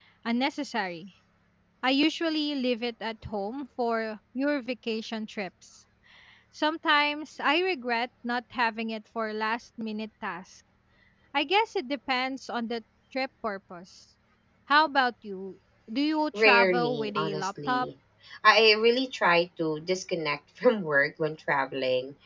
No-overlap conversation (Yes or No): No